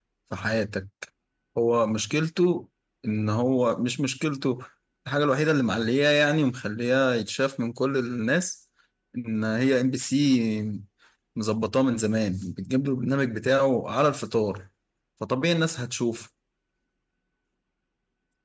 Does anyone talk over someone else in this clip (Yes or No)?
No